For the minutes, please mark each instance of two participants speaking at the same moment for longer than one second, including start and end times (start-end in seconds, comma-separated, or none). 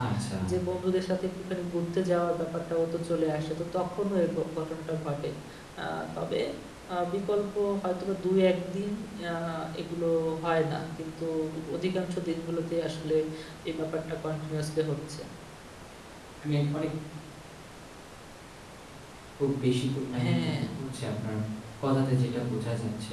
none